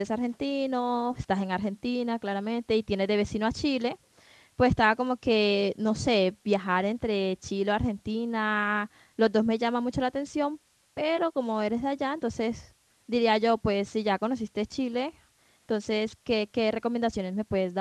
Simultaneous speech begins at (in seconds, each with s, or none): none